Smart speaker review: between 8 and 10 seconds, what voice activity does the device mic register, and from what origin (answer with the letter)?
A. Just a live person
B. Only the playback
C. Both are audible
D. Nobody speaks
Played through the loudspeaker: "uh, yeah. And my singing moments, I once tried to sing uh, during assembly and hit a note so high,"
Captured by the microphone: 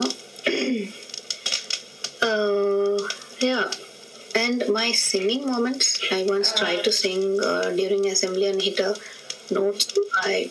B